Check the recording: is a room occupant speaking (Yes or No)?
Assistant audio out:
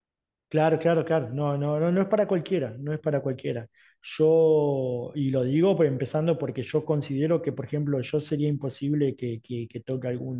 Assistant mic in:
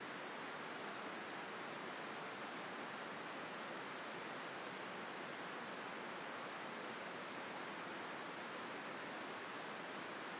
No